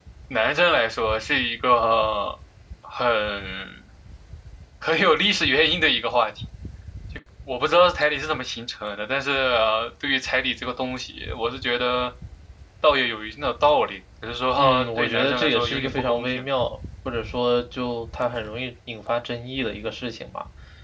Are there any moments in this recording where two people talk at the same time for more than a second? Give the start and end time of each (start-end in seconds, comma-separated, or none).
14.6-16.4